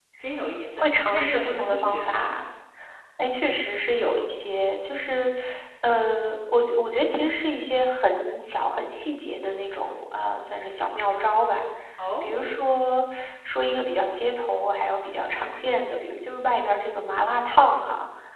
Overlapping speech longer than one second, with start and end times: 0.8-2.3

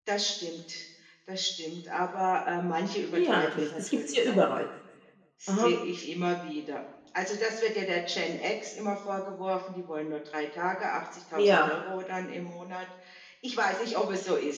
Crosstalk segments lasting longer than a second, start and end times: 3.1-4.5

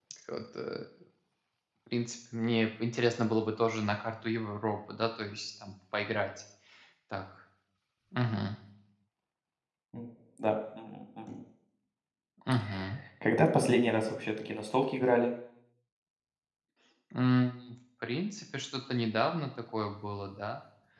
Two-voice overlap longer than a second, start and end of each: none

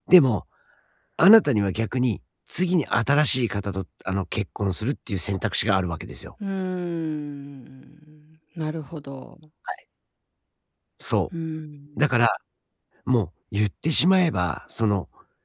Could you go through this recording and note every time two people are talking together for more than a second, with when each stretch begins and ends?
none

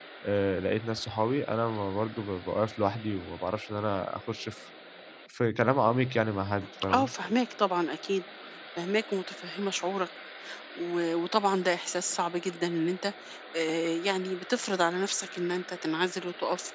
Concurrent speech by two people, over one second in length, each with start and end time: none

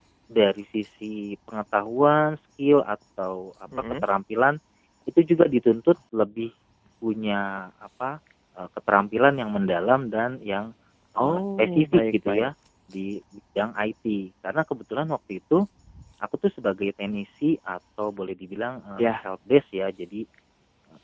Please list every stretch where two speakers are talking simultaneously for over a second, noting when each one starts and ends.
11.2-12.5

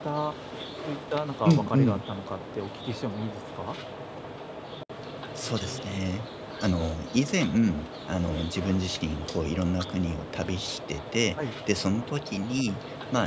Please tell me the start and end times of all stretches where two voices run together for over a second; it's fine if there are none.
none

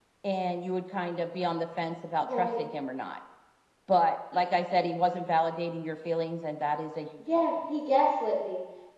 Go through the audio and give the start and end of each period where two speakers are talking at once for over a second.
none

